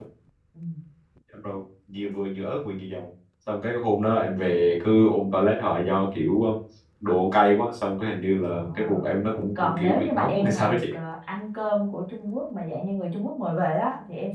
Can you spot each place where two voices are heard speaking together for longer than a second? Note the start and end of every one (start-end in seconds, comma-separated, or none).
9.6-10.8